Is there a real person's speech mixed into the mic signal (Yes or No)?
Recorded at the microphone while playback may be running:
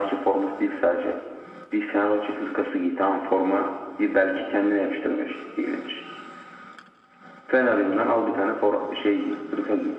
No